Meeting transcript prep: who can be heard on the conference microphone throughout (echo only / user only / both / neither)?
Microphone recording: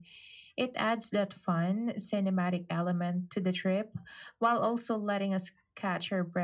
echo only